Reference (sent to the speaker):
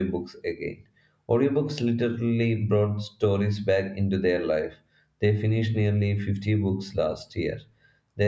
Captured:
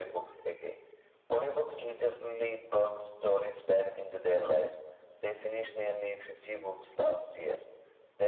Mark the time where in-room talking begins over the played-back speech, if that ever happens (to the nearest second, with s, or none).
none